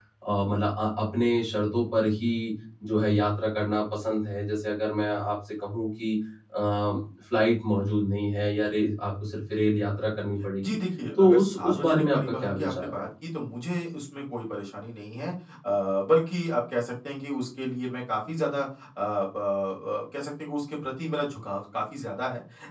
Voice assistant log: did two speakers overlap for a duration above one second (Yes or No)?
Yes